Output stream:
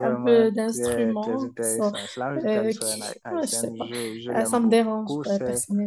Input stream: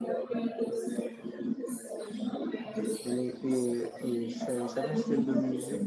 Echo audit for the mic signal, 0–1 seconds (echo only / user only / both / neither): echo only